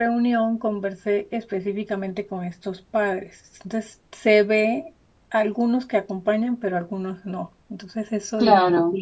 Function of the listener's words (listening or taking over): listening